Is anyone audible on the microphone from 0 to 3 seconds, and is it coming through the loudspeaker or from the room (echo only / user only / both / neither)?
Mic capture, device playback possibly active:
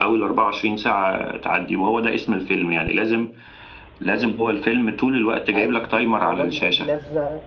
echo only